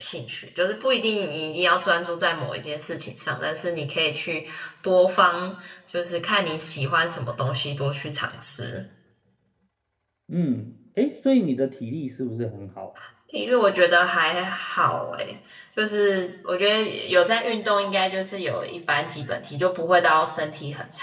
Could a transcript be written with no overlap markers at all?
Yes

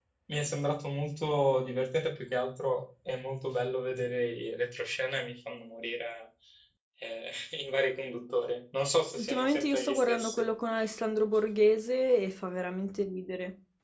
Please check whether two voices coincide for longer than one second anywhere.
Yes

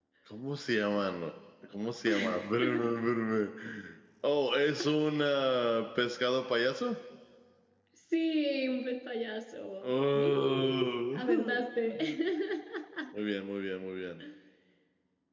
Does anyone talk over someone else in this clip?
Yes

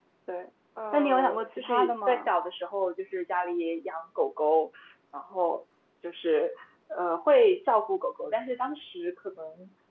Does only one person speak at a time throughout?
No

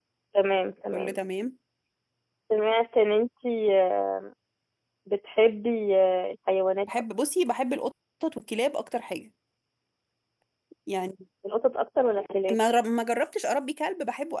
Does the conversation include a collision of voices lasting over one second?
No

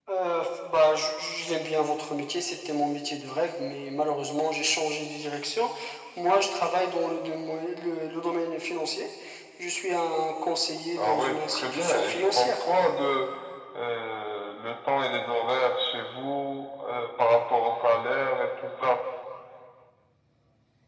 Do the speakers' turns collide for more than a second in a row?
Yes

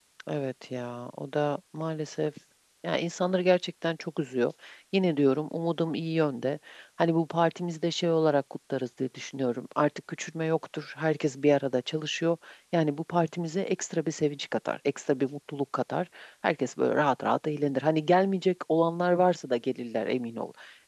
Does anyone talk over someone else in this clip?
No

